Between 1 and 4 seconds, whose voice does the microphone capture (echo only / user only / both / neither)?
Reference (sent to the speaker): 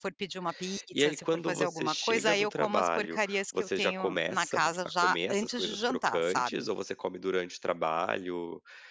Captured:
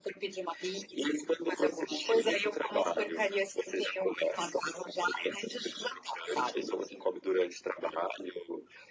echo only